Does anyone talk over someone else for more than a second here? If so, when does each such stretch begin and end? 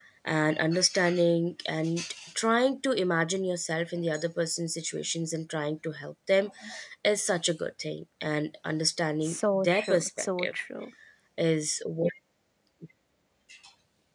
9.2-10.6

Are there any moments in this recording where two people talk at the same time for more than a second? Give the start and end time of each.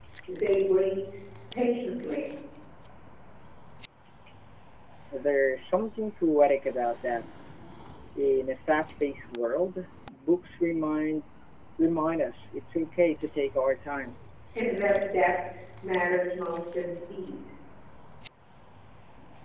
none

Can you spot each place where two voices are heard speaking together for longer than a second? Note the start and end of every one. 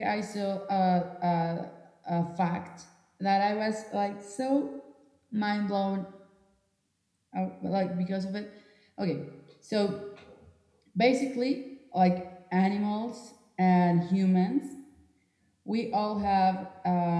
none

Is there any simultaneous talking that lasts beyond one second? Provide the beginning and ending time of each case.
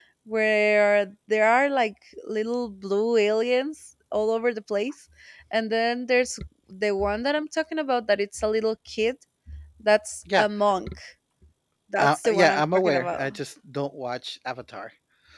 12.0-13.3

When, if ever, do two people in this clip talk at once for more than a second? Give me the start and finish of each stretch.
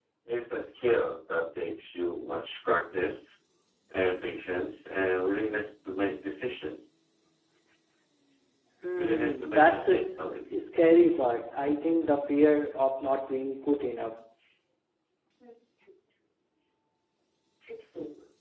9.0-10.2

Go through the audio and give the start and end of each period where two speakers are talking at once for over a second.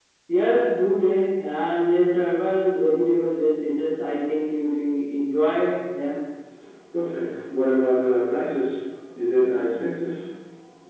none

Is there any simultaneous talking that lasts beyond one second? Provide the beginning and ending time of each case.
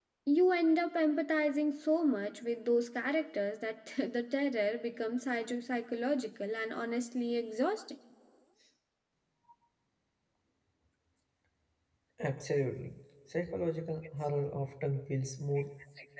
none

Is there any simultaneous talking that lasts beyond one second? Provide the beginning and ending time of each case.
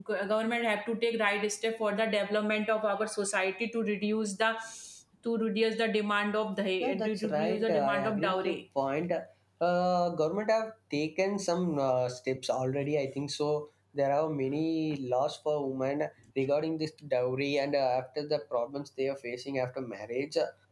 7.0-8.6

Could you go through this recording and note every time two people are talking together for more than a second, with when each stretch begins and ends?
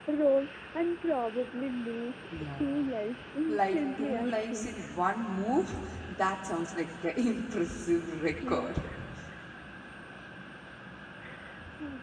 3.5-4.8

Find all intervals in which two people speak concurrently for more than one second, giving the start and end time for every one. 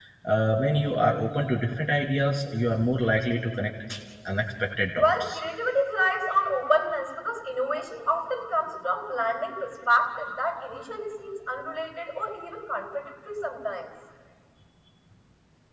none

